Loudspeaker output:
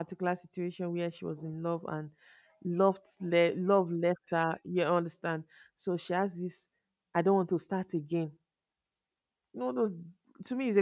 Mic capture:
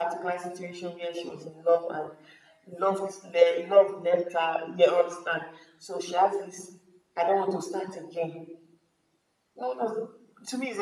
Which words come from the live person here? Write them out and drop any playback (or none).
none